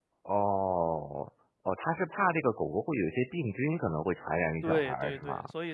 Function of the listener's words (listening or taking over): taking over